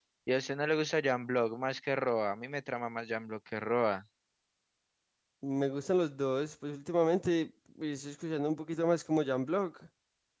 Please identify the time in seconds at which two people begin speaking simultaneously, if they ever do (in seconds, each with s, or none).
none